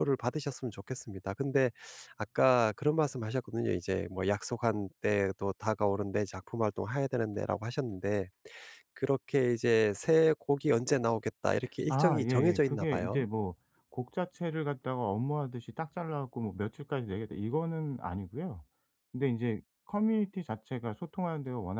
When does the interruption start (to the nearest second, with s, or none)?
12 s